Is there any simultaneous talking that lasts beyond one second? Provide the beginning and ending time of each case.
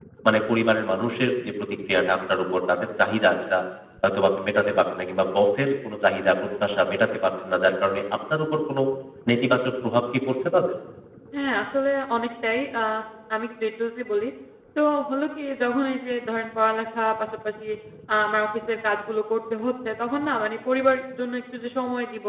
none

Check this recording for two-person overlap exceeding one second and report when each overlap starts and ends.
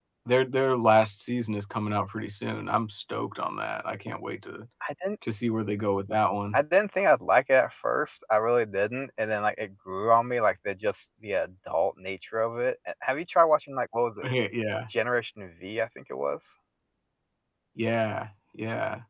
none

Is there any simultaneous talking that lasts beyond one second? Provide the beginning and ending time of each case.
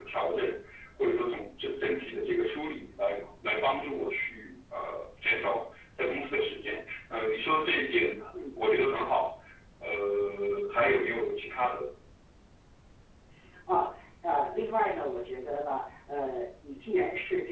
none

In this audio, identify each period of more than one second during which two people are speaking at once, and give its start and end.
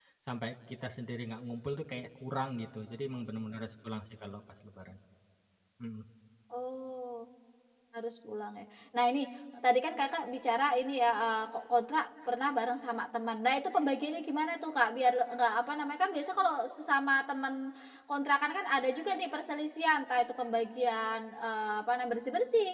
none

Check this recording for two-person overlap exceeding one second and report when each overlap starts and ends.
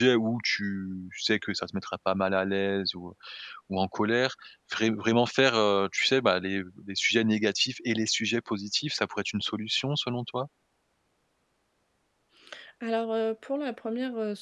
none

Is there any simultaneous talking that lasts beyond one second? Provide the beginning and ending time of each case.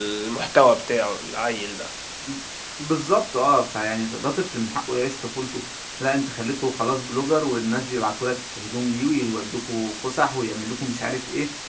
none

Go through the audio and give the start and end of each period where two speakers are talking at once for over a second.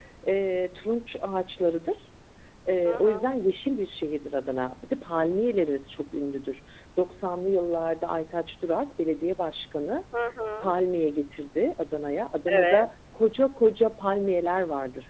none

